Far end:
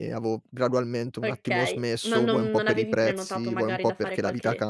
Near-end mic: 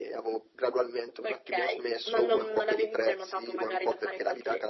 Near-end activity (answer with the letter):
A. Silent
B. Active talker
A